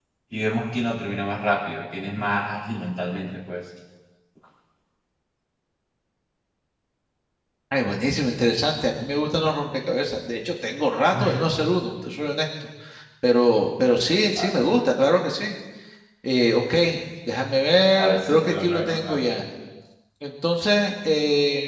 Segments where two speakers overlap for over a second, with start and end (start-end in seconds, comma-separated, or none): 18.0-19.2